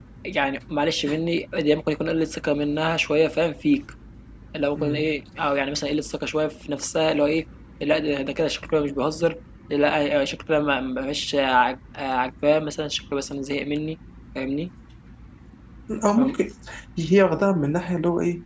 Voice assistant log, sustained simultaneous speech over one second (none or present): none